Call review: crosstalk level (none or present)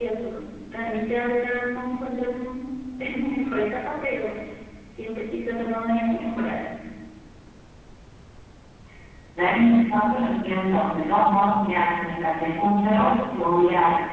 none